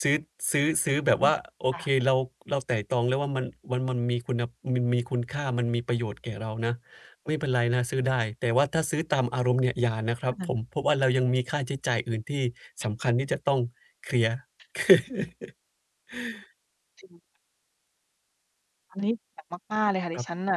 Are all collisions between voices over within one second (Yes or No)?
Yes